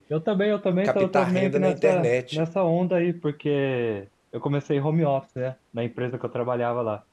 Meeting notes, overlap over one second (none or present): present